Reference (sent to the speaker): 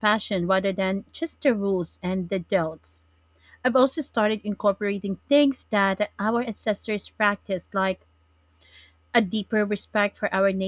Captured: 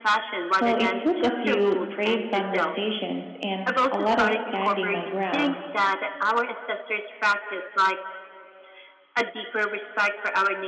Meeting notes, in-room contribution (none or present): present